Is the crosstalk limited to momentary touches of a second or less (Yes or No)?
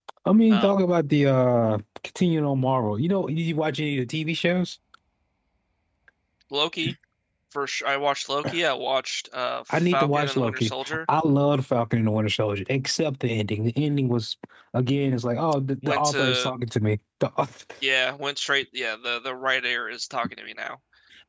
No